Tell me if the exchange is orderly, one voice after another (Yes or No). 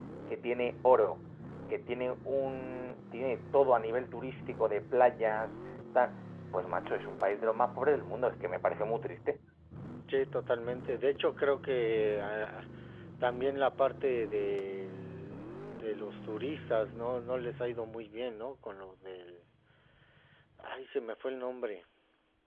Yes